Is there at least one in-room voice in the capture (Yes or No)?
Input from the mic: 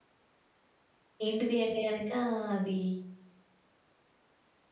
Yes